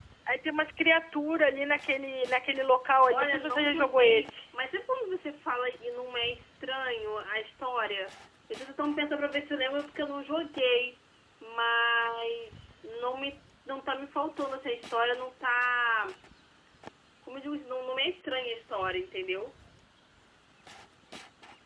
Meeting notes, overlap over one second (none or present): present